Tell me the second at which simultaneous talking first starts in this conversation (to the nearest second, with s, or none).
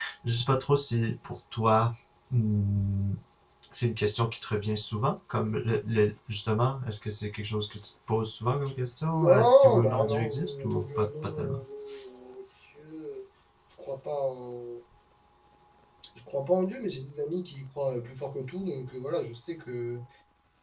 9 s